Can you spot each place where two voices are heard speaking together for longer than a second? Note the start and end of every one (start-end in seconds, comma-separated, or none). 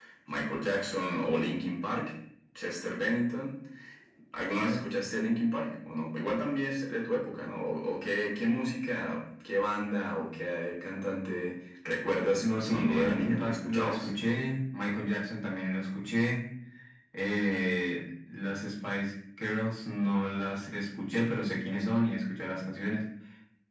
12.4-14.1